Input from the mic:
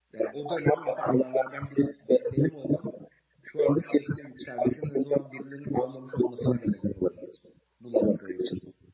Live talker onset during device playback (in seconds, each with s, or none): none